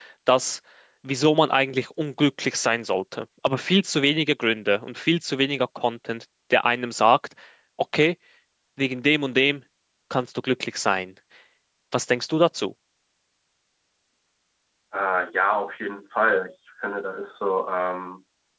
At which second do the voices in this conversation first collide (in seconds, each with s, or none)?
none